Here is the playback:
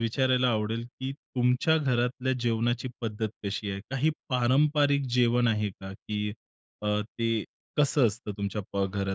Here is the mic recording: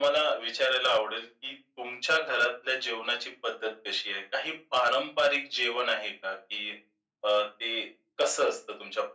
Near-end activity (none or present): none